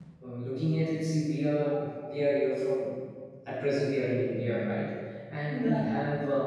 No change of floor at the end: Yes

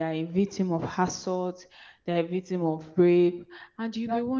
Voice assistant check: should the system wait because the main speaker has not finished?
Yes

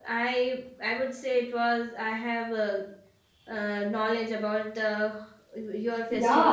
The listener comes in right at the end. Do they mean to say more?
Yes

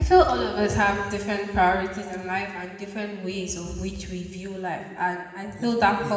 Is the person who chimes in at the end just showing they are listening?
Yes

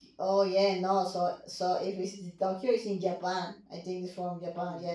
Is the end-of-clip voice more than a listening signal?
Yes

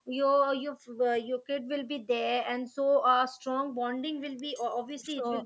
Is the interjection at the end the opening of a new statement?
Yes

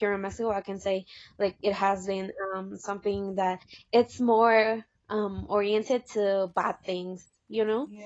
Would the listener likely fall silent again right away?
Yes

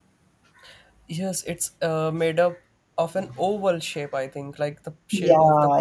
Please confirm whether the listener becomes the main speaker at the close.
Yes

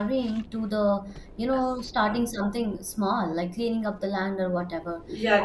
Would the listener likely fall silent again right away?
No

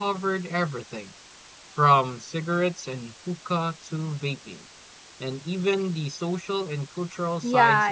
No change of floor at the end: No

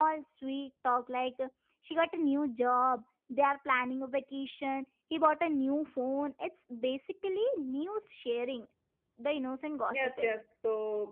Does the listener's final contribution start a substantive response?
Yes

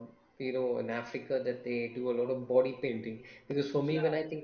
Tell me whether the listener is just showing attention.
Yes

